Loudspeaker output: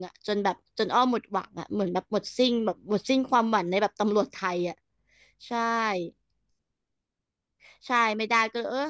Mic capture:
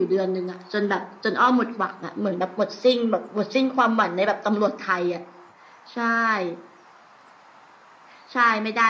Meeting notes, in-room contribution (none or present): none